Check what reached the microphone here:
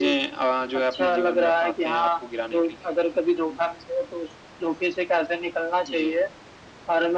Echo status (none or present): present